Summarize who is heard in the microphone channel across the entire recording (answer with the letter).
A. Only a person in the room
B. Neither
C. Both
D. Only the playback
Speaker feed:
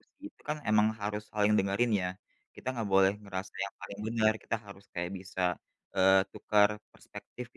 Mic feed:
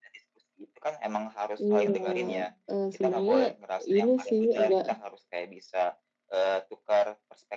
C